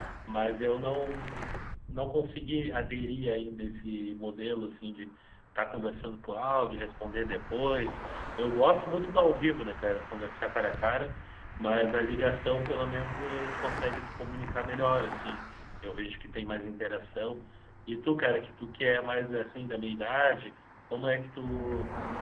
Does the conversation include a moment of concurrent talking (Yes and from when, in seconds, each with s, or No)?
No